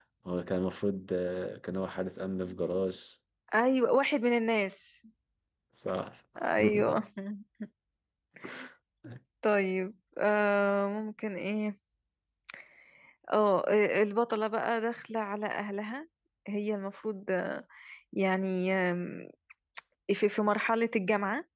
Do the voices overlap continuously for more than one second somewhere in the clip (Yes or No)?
No